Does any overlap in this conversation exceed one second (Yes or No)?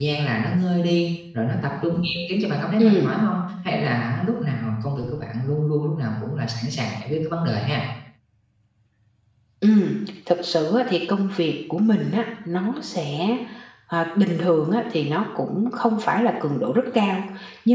No